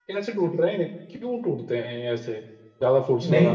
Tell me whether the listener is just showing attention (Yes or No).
No